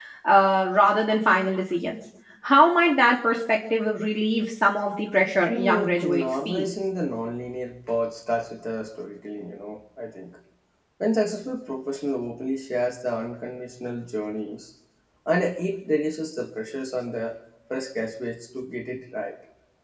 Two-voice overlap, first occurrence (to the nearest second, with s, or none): 5 s